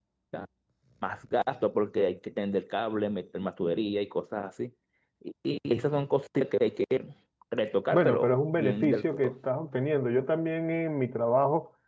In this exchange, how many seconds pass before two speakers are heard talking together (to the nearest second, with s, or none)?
8 s